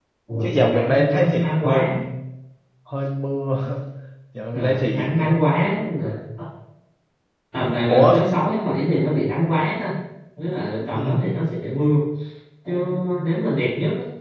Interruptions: present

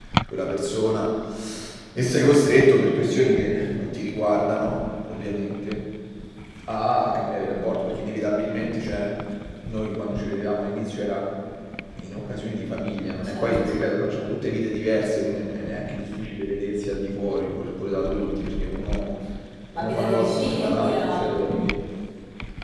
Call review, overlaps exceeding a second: present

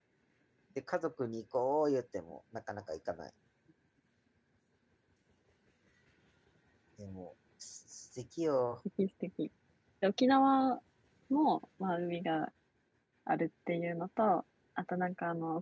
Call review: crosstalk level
none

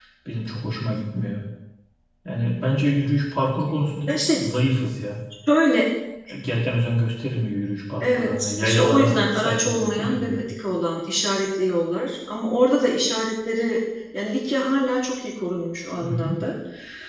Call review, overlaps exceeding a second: present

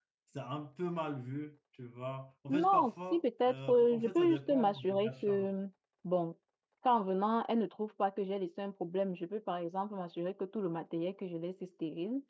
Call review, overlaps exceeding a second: present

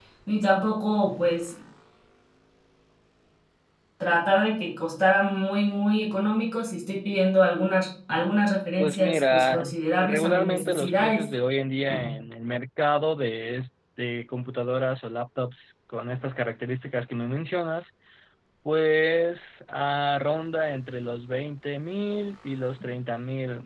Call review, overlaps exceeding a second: present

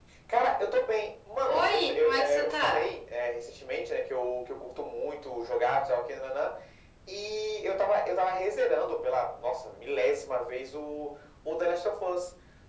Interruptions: present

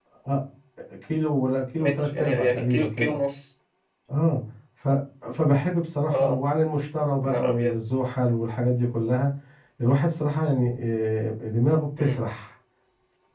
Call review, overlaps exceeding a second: present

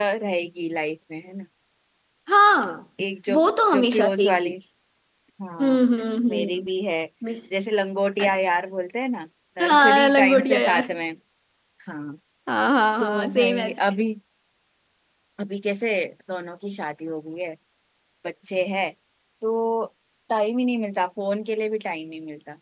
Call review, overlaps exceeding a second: present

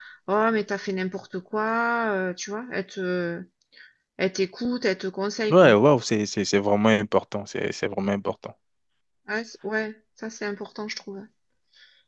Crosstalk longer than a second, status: none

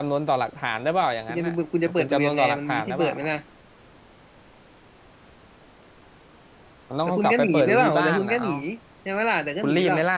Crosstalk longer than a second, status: present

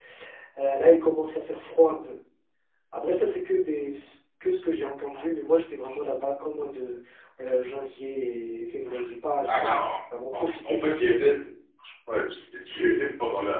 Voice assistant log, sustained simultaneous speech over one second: none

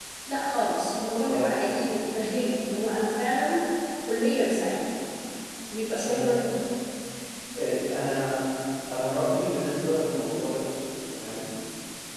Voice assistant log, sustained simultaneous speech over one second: none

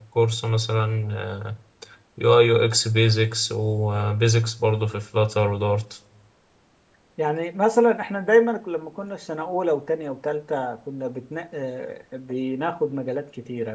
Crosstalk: none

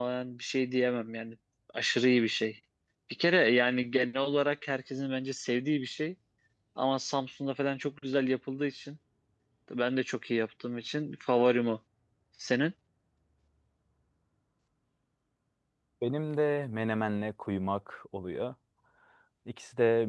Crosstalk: none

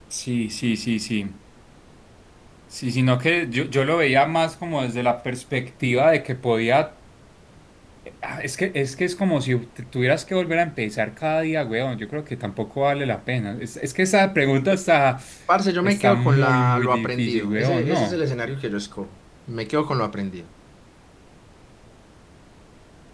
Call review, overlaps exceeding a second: present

